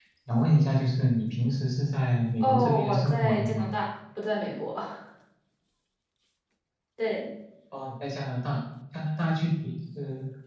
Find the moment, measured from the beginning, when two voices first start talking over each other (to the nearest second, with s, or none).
2 s